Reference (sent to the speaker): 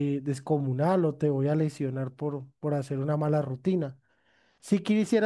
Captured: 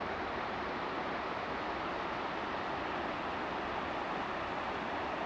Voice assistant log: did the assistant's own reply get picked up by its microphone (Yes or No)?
No